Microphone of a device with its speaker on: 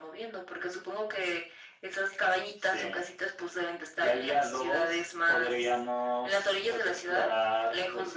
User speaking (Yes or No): No